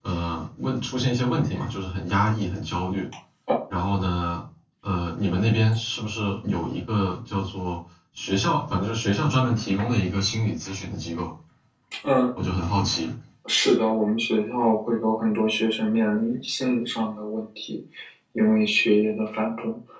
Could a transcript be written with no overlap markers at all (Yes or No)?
Yes